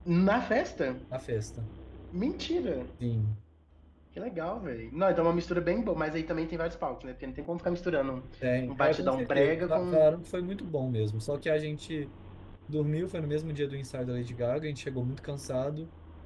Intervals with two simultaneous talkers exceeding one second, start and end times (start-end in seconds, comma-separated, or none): 8.7-10.0